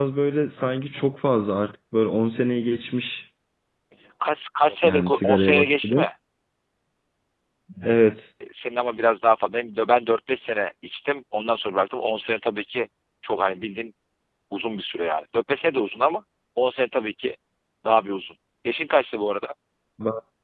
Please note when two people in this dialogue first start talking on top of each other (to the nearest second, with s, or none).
5 s